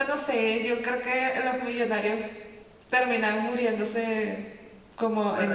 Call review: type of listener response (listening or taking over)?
taking over